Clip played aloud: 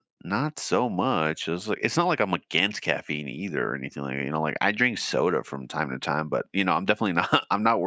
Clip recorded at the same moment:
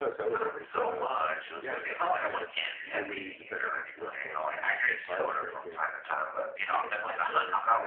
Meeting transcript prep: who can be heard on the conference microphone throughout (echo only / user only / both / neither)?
both